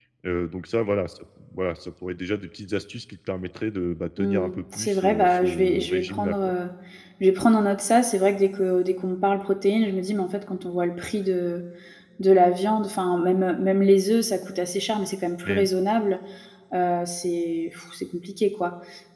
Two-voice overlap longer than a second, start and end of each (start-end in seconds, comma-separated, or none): 4.2-6.5